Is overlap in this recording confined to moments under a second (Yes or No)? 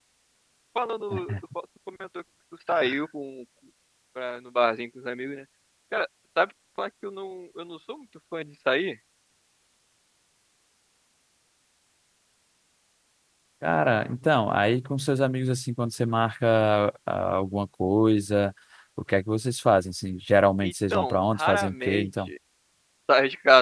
No